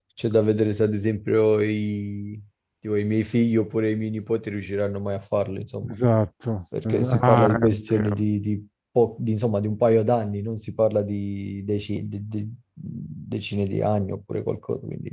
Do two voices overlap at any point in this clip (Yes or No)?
Yes